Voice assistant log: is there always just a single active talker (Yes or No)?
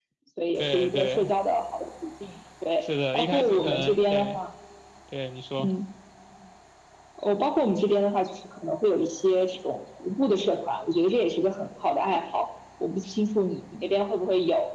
No